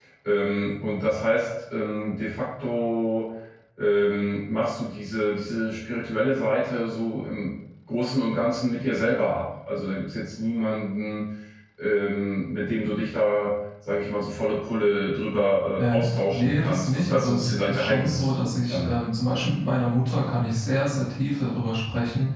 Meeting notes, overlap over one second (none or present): present